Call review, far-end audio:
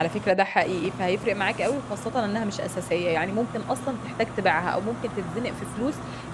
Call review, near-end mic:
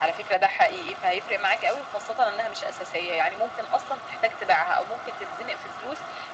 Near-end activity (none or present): none